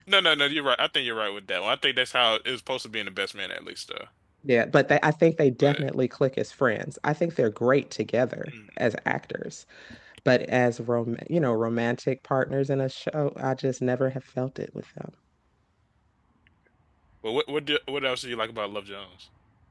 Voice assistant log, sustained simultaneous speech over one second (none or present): none